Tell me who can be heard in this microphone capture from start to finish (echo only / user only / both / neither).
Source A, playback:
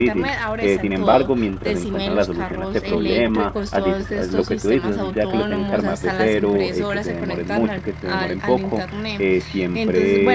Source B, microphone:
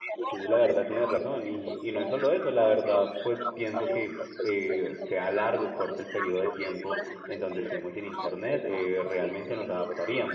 both